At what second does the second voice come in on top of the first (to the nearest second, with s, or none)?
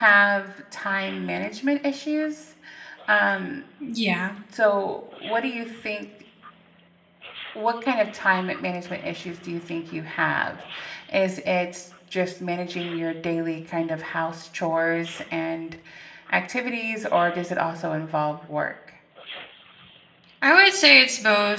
none